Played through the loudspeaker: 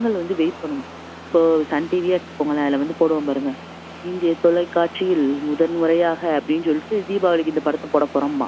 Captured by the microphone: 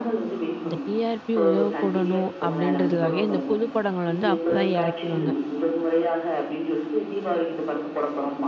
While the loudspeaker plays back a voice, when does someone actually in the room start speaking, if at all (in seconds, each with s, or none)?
0.6 s